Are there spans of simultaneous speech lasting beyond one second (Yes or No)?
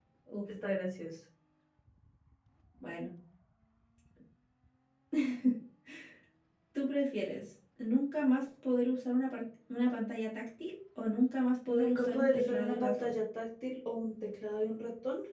Yes